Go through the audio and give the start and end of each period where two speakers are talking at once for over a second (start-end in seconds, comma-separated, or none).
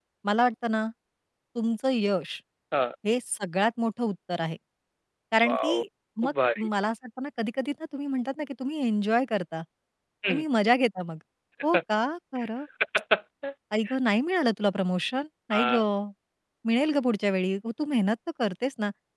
none